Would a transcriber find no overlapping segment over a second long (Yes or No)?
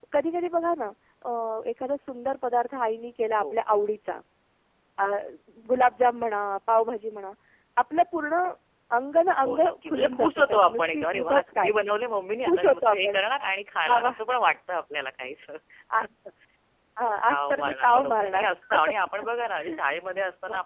No